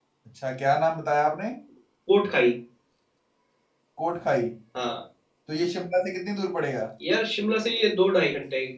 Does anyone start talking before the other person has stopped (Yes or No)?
No